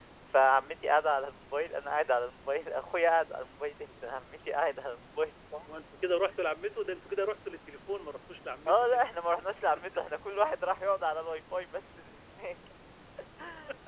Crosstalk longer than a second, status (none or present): none